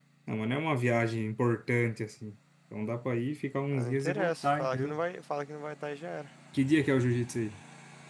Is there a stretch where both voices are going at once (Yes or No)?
Yes